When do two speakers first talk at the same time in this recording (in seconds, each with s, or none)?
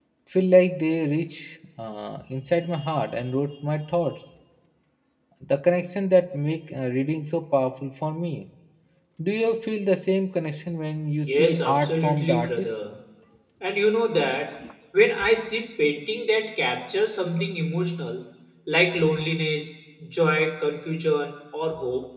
11.3 s